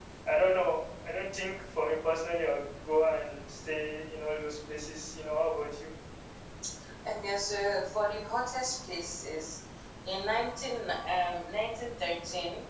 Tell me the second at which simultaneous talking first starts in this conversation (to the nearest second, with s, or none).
none